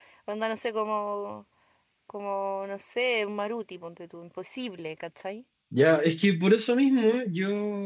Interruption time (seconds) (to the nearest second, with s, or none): none